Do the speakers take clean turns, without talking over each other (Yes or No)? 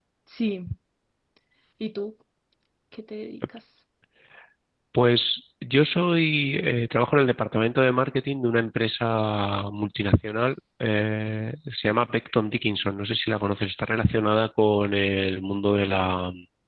Yes